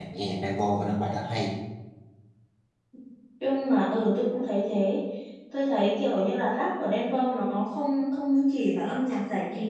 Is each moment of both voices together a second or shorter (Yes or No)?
Yes